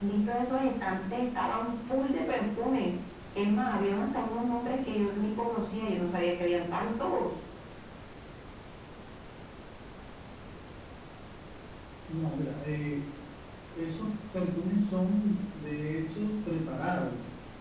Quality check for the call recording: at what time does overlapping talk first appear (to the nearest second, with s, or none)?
none